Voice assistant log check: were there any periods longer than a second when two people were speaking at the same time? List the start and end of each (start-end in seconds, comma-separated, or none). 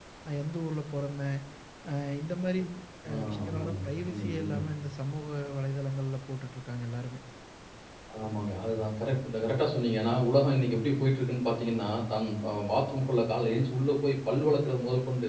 3.1-4.6